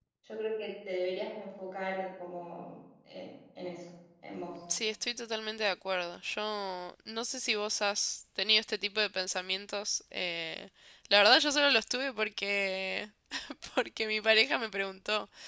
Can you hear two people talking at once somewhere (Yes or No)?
No